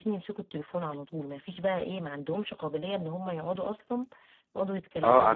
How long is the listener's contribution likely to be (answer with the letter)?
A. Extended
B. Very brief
A